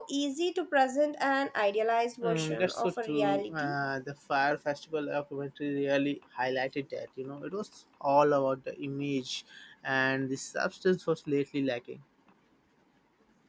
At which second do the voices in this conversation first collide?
2 s

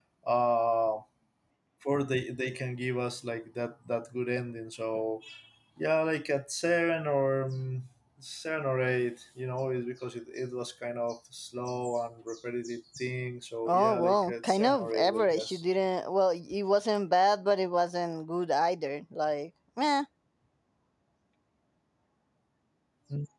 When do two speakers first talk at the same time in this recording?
14 s

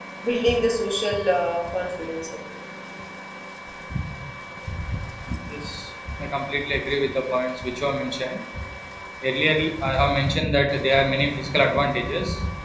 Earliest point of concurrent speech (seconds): none

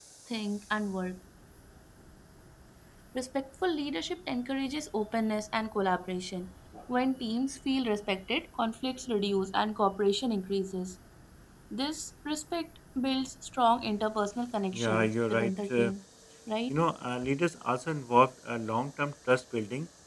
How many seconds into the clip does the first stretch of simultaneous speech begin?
15 s

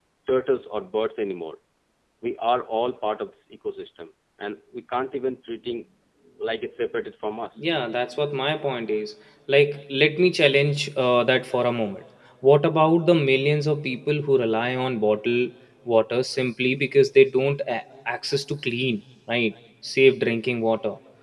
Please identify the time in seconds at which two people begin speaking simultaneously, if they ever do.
none

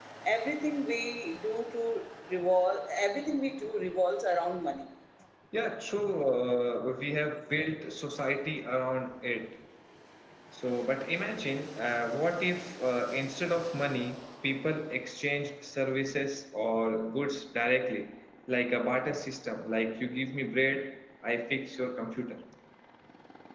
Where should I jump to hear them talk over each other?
none

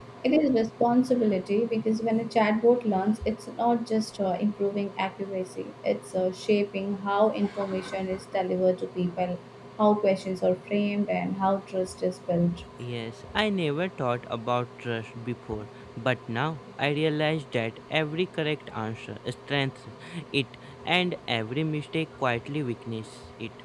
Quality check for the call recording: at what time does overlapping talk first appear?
none

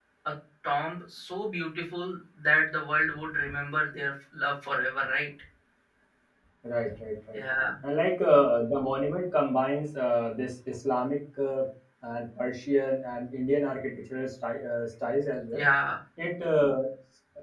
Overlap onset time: none

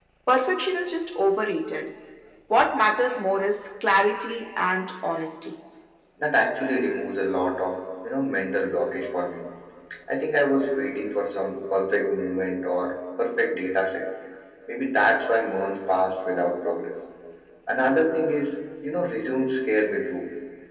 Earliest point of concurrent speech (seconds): none

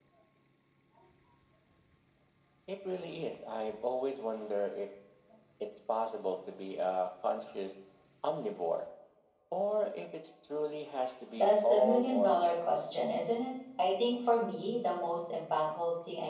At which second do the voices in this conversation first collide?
11 s

